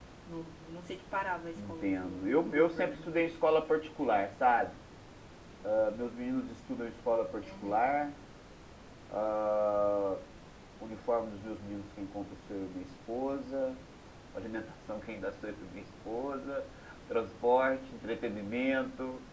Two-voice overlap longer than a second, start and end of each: 1.6-3.1

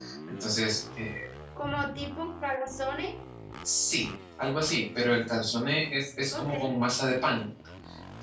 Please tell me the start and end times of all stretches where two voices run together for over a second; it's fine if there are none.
none

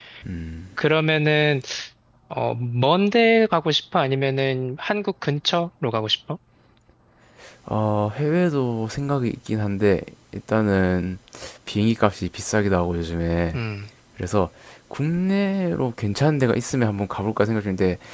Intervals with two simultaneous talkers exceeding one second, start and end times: none

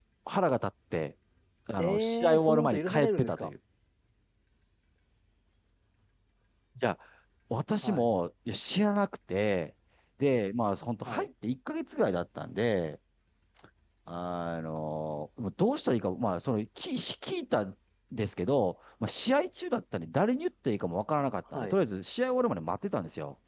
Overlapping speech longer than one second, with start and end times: 1.8-3.5

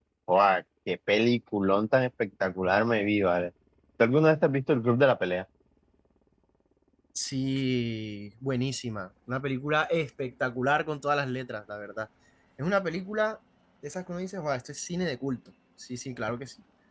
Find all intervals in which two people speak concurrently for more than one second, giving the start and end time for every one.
none

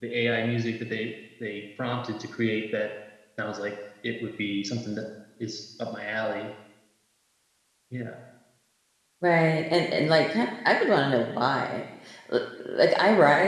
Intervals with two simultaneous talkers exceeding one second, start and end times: none

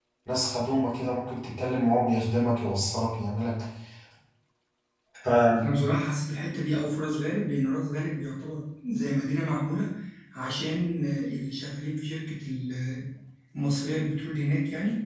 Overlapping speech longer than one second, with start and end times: none

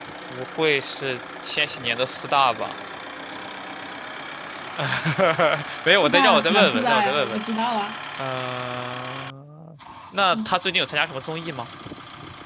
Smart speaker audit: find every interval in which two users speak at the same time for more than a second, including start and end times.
6.0-7.4

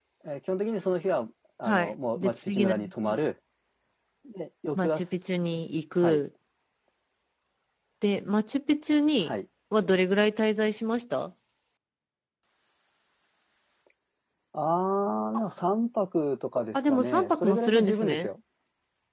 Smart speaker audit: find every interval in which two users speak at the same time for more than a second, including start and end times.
1.6-3.2, 16.7-18.3

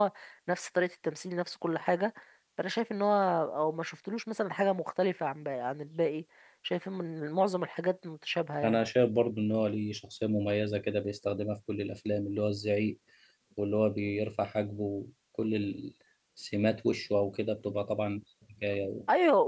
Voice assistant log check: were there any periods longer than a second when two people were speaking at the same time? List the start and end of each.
none

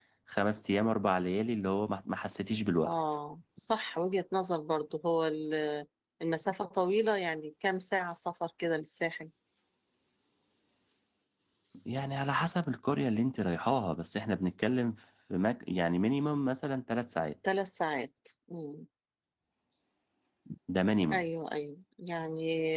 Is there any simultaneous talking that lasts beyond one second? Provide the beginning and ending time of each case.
none

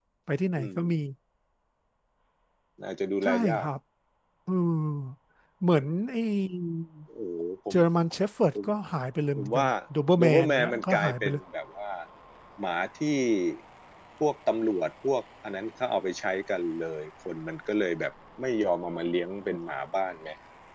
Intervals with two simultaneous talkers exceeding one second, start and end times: 10.2-11.4

